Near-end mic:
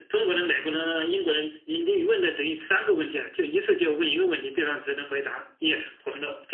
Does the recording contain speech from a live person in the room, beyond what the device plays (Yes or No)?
No